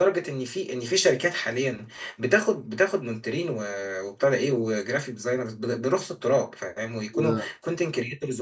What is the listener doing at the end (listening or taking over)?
listening